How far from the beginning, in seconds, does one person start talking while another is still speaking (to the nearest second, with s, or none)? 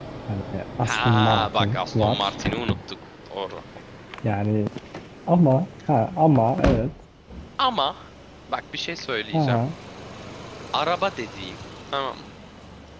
1 s